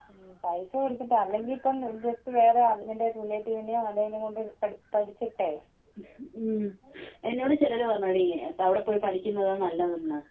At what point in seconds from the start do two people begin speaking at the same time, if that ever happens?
none

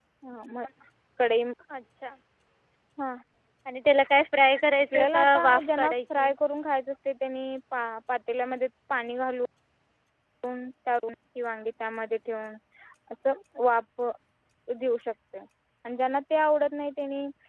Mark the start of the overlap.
4.8 s

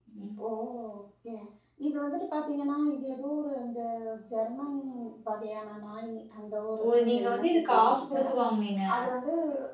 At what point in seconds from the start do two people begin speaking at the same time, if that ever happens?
6.8 s

